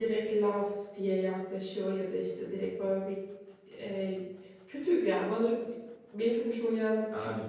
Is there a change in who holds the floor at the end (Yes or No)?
No